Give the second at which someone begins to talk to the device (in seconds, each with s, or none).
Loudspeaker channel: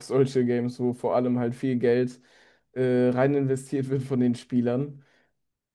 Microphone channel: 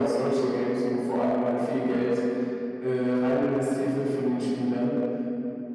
none